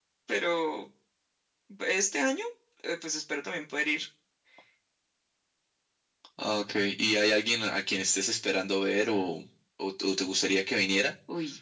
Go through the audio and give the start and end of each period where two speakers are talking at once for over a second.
none

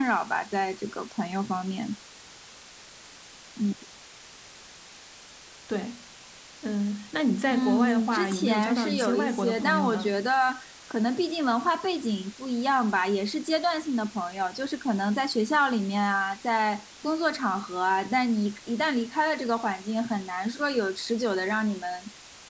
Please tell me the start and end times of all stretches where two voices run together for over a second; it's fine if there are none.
7.5-10.1

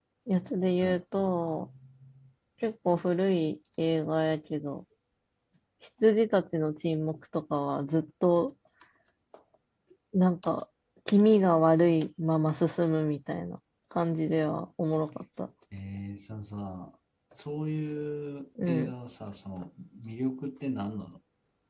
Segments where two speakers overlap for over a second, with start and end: none

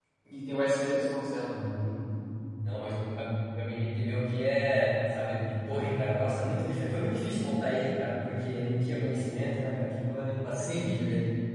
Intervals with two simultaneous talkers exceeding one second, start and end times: none

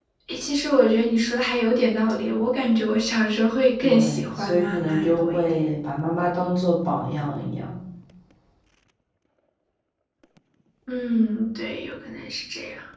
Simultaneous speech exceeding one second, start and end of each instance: 3.8-5.6

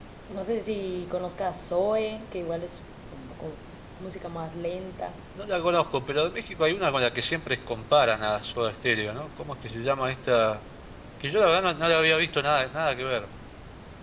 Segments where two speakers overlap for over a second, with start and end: none

